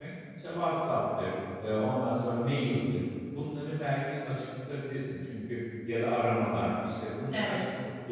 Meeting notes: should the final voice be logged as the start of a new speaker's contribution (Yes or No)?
No